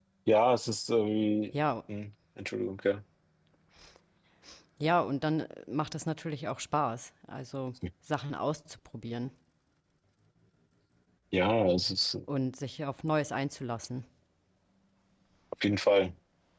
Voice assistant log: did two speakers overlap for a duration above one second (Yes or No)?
No